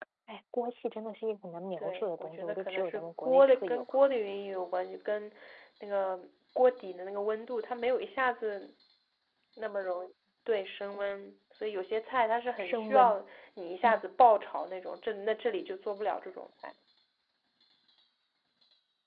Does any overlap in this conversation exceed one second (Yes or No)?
Yes